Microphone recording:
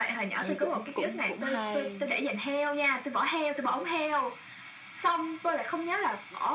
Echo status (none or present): present